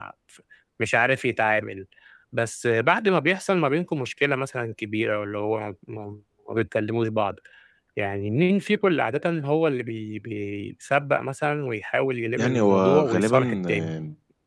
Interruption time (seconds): 12.4 s

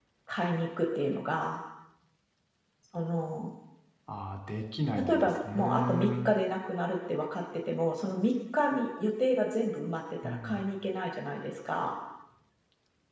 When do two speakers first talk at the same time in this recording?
5.1 s

